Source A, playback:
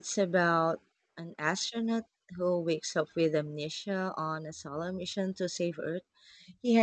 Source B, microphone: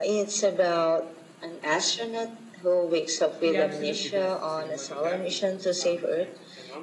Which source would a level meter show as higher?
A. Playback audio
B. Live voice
A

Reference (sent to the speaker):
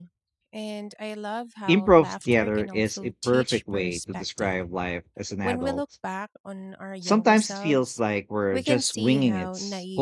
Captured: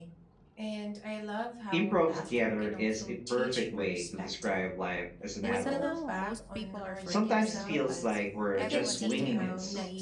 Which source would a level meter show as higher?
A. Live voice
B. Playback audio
B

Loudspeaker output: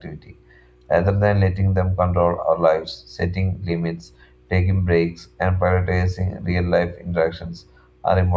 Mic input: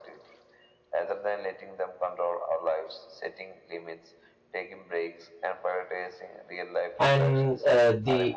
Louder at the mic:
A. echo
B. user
B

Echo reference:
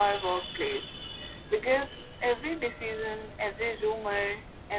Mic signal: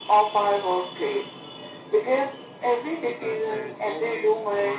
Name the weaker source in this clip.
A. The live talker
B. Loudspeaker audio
A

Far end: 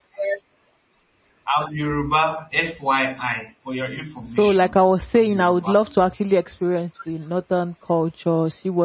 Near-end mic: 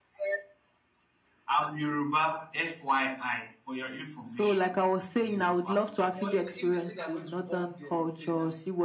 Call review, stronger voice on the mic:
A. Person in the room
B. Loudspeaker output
B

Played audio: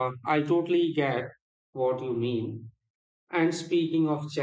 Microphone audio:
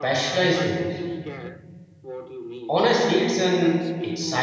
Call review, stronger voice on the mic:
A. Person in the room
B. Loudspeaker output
A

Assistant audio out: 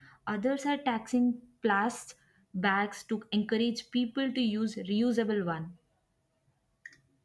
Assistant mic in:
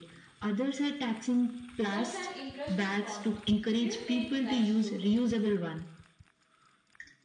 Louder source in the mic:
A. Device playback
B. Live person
A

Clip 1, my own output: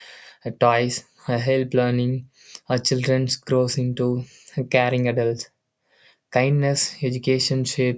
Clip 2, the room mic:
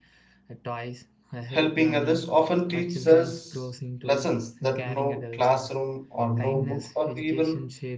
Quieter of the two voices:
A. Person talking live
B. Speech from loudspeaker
B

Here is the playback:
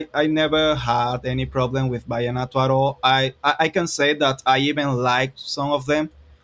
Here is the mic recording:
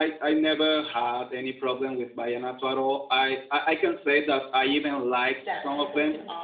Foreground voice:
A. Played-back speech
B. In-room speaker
A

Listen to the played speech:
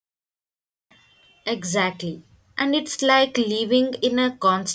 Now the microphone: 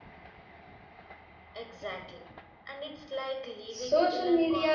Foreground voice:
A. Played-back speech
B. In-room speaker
B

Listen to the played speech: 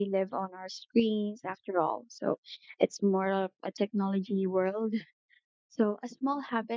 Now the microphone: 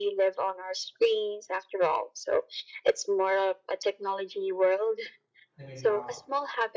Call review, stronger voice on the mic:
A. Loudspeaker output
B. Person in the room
A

